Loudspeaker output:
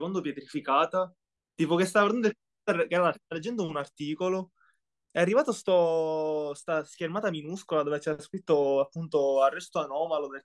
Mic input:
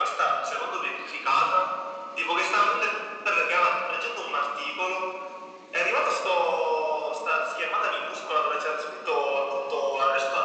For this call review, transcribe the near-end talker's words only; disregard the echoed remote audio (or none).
none